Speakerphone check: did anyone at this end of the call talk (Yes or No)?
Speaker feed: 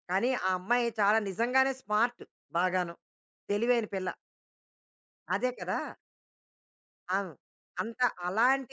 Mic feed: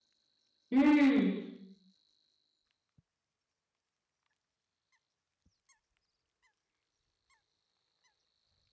Yes